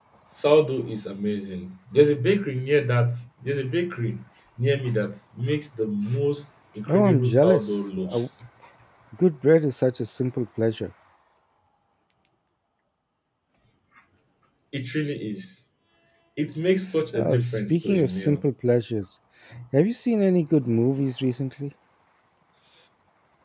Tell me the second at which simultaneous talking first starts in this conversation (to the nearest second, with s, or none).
7 s